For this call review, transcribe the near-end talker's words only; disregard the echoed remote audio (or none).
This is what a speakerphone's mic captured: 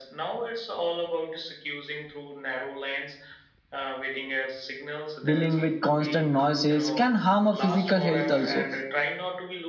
dealing with constant noises can harm a physical health also